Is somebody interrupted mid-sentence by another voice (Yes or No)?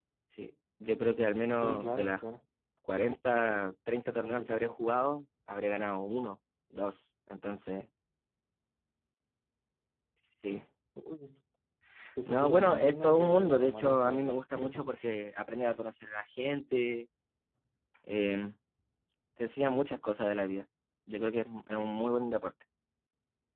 Yes